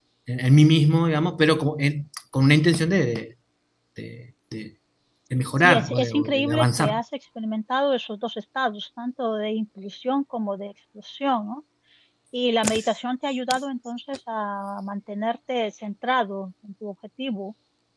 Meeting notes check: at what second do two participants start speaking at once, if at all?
5.6 s

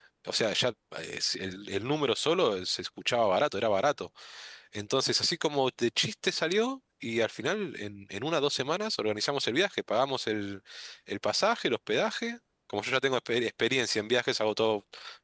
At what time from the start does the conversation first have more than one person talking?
none

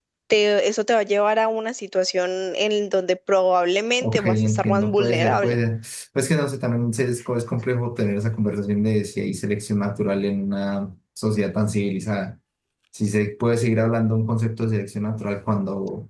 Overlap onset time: 4.0 s

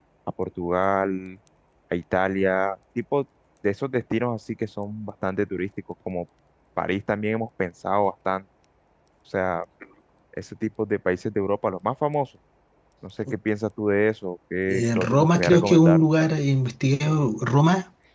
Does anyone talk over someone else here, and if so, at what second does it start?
14.7 s

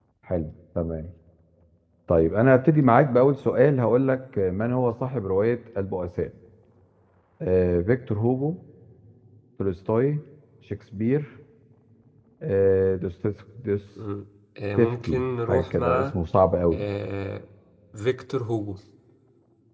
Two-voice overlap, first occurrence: 14.8 s

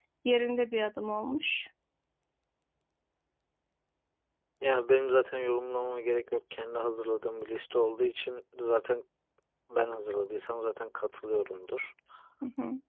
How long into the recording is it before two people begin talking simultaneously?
none

